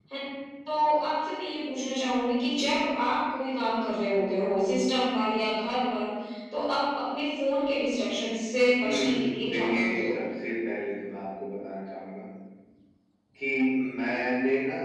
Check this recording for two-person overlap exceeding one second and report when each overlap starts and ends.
8.8-10.2

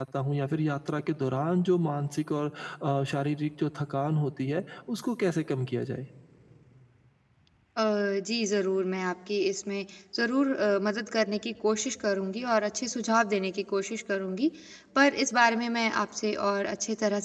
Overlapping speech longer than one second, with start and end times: none

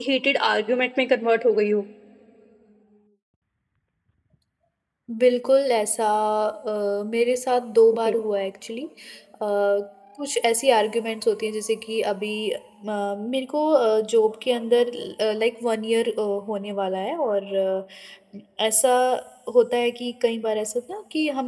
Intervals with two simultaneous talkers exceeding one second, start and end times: none

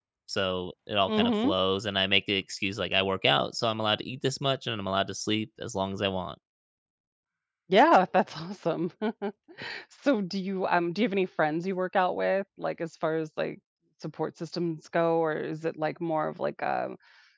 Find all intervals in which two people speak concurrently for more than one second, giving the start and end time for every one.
none

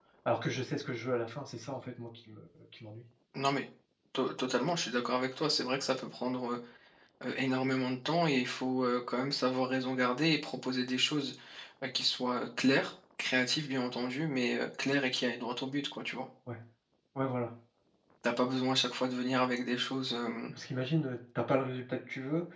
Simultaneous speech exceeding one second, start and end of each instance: none

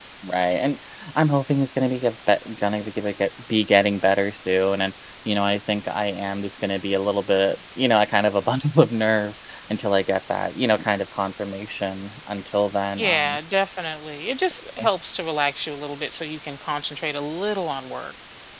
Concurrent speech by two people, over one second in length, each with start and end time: none

